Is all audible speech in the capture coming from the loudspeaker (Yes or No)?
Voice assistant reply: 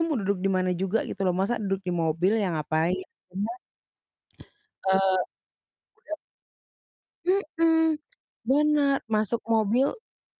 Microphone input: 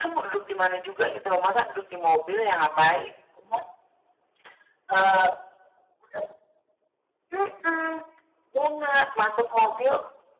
Yes